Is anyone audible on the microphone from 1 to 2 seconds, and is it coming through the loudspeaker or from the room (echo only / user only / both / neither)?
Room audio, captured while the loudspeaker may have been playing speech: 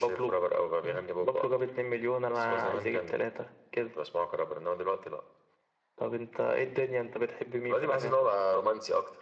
echo only